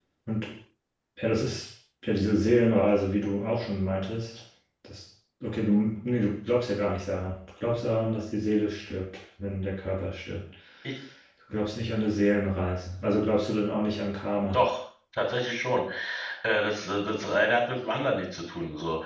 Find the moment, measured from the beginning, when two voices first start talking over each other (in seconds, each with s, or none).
none